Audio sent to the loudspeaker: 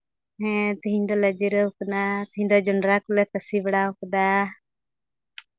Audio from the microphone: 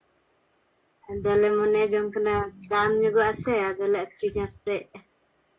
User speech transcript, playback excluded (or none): ᱟᱫᱚᱞᱮ ᱢᱚᱱᱮ ᱡᱚᱝ ᱠᱟᱱᱟ ᱫᱟᱢ ᱧᱚᱜᱚᱜᱼᱟ ᱥᱮ ᱟᱫᱚᱞᱮ ᱟᱹᱠᱷᱨᱤᱧᱟ ᱥᱮᱜ